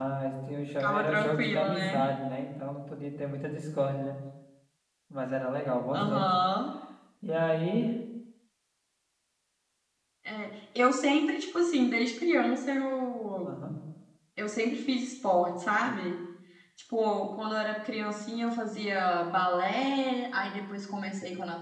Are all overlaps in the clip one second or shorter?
No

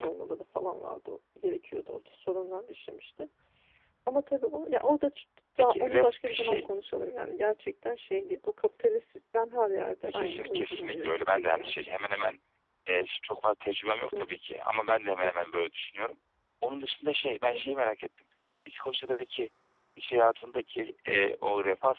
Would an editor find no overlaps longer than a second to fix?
No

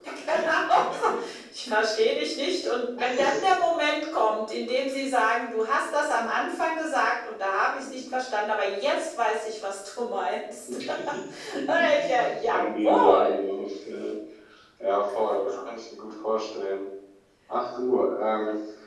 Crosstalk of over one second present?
Yes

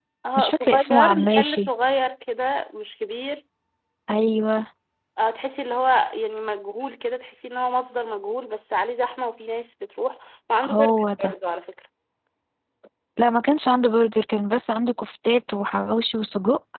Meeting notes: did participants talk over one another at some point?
Yes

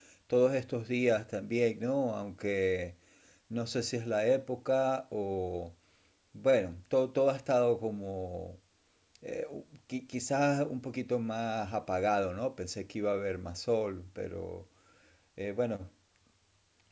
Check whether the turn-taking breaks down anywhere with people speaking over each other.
No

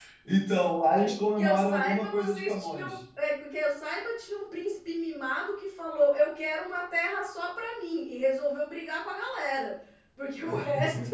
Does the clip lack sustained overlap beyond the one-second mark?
No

